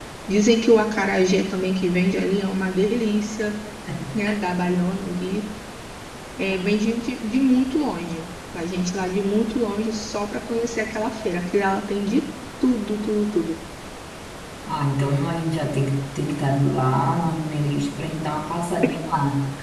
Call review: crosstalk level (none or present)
none